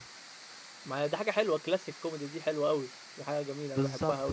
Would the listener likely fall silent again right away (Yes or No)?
No